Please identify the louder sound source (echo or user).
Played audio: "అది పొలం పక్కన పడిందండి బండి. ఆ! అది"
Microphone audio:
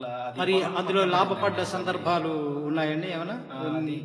user